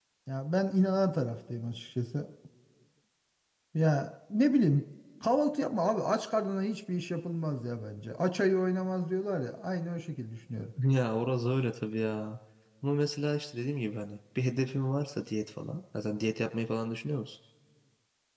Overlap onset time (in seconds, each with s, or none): none